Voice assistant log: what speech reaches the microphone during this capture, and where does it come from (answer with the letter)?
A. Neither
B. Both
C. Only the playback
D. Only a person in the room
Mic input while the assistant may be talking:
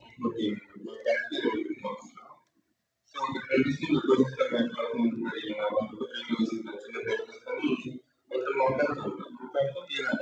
C